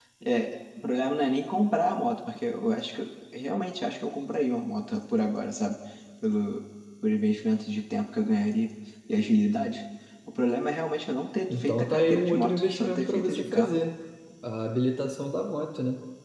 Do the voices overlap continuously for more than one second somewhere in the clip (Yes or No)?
Yes